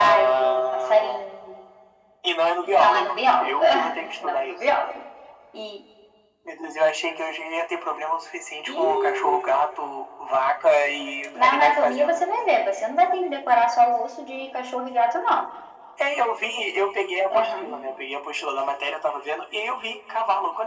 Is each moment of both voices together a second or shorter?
No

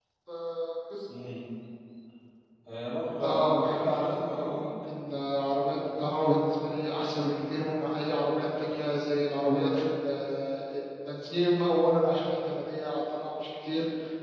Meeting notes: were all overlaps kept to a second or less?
No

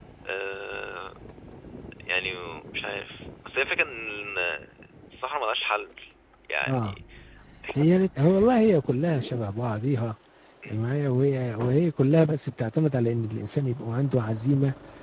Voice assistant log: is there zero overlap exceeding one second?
Yes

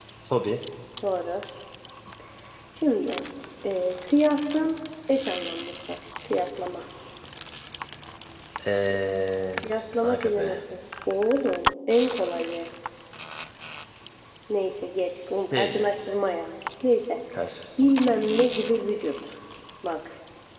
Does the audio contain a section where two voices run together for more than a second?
No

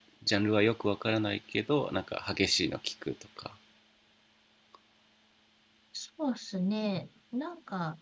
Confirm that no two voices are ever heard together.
Yes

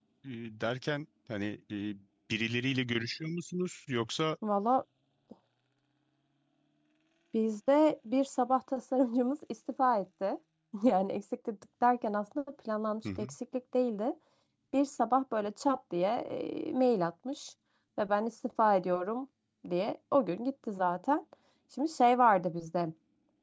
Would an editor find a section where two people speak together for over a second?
No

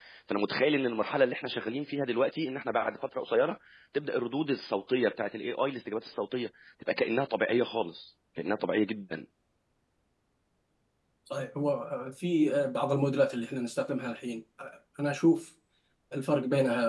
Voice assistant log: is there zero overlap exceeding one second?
Yes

